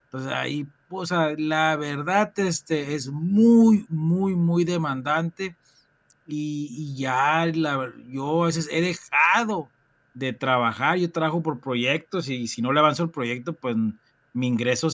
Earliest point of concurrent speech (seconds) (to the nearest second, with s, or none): none